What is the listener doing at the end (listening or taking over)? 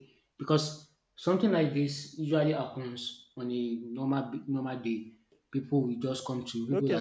taking over